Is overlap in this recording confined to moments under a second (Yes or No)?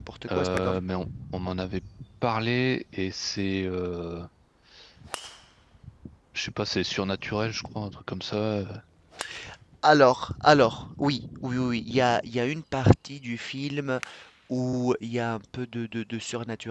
Yes